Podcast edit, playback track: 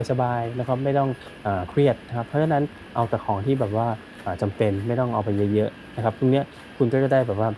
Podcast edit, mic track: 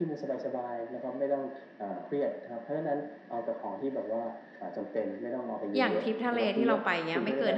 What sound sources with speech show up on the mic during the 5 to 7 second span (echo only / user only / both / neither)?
both